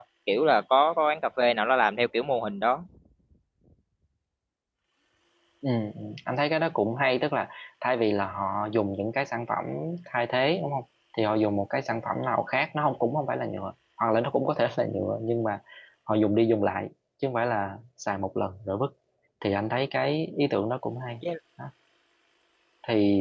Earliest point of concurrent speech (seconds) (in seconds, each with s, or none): none